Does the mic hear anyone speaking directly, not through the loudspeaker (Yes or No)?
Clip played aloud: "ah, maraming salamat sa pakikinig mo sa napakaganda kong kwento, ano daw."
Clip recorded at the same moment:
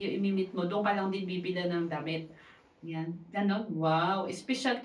Yes